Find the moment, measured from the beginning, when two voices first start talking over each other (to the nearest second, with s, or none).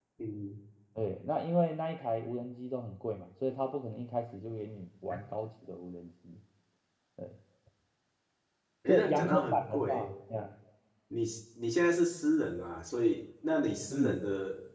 9 s